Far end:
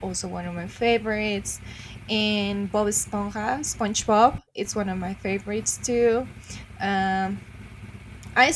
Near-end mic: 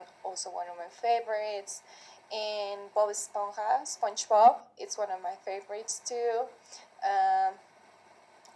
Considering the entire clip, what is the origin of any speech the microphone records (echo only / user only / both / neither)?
echo only